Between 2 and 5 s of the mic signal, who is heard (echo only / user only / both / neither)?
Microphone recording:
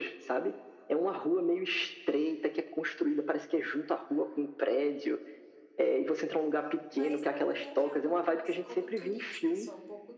echo only